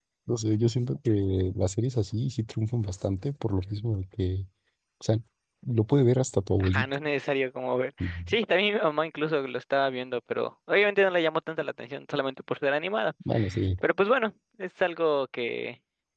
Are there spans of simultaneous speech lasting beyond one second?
No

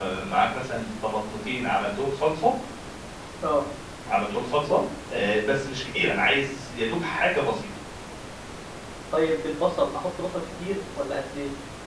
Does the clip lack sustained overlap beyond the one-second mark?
Yes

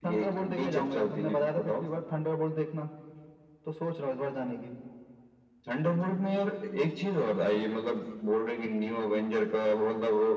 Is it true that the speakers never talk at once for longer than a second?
No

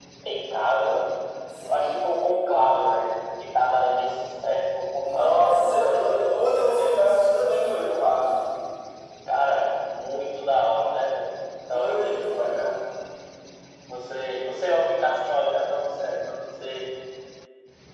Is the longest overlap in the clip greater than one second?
Yes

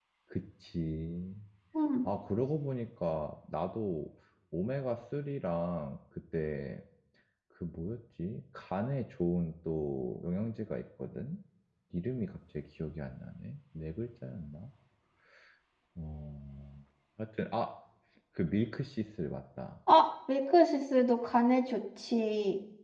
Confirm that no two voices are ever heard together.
Yes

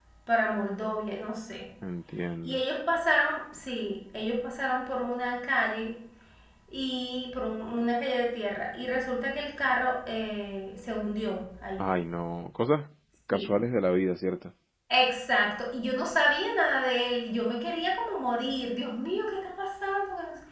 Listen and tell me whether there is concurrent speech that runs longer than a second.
No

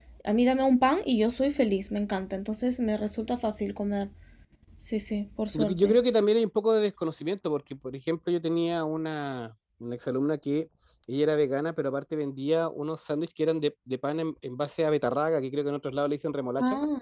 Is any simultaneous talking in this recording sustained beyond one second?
No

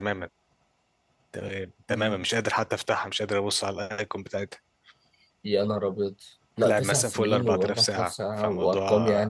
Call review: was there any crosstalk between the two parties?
Yes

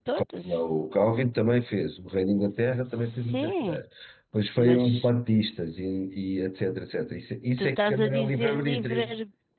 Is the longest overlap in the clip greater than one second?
Yes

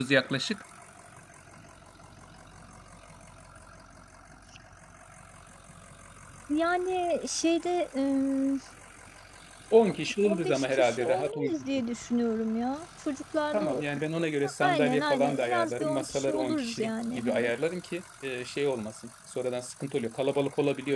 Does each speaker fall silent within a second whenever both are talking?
No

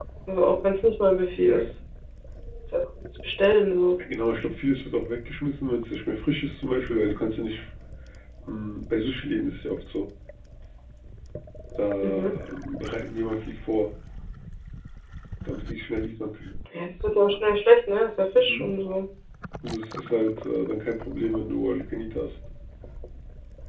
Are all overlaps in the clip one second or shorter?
Yes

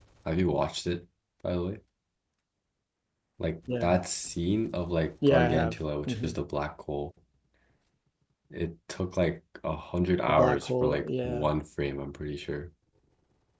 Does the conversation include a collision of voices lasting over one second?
Yes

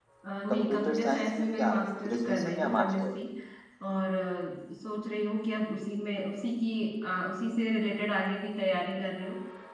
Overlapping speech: Yes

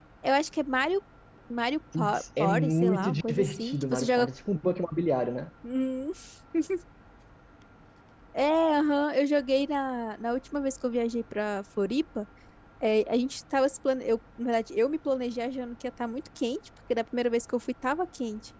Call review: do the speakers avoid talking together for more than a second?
No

